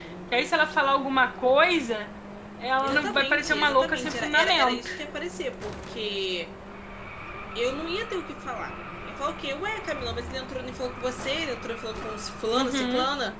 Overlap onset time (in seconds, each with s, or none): 2.8 s